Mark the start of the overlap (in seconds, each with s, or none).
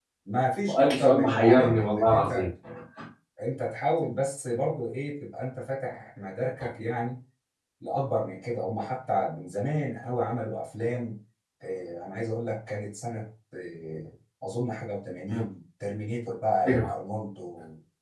0.7 s